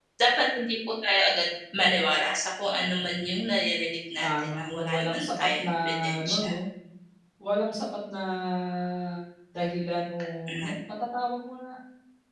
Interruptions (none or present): present